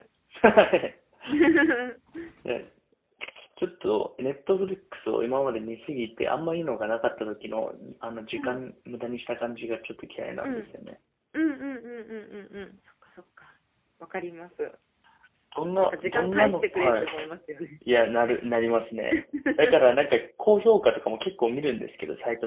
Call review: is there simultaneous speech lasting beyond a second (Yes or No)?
Yes